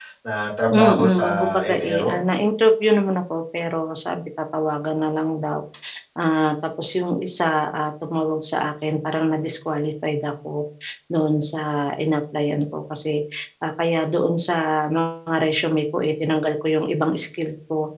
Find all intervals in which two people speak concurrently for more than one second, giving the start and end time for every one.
0.7-2.2

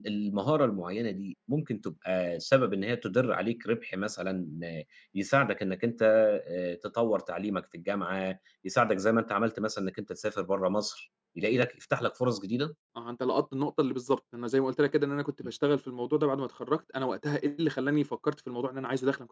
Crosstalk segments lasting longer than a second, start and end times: none

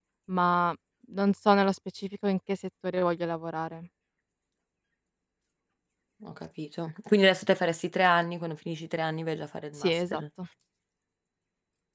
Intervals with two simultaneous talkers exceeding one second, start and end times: none

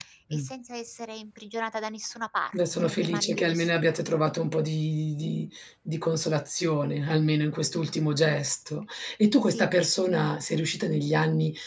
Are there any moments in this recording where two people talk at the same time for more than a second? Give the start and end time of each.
2.5-4.0

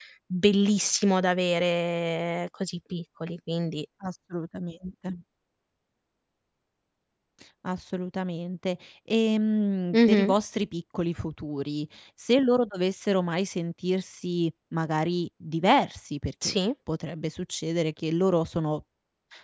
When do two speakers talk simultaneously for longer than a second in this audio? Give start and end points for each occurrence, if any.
none

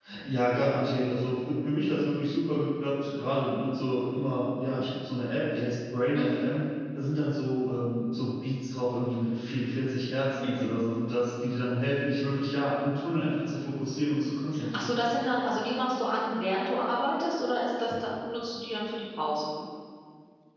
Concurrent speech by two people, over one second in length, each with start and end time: none

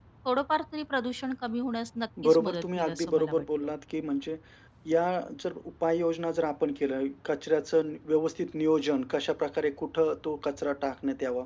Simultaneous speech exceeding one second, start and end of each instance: 2.2-3.5

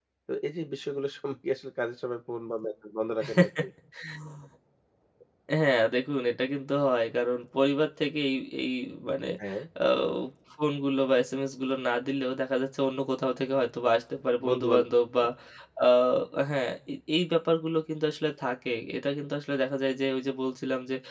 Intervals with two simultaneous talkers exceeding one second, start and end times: none

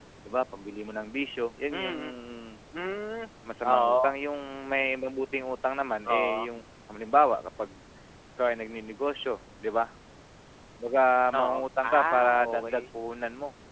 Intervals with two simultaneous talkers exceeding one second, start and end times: 11.3-12.9

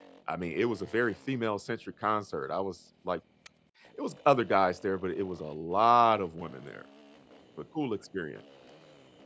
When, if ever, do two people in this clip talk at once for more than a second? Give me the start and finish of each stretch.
none

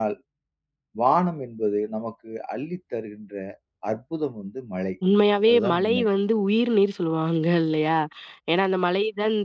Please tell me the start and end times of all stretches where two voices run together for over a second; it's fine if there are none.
none

